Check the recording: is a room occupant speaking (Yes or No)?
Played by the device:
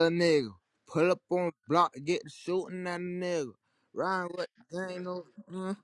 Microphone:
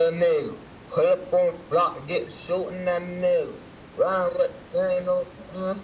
No